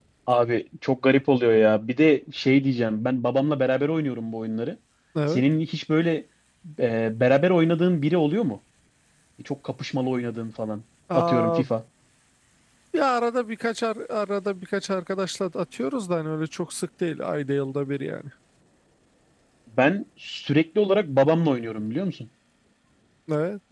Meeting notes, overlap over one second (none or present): none